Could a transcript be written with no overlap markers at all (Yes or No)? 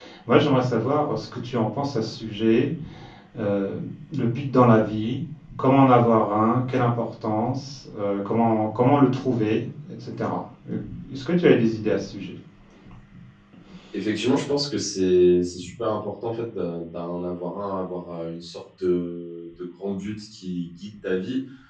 Yes